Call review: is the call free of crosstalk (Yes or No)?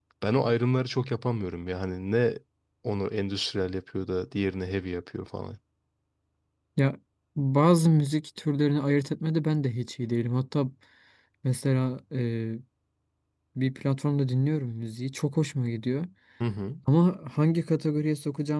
Yes